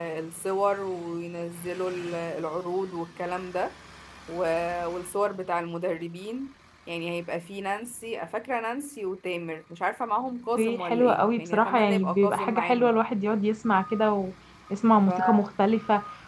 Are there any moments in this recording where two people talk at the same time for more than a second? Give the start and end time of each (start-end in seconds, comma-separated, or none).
10.6-12.9